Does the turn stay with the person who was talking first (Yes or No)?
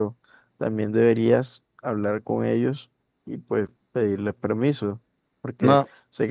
Yes